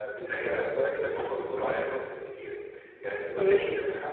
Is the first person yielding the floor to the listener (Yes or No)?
No